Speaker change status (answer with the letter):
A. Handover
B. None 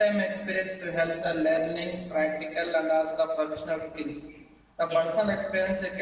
B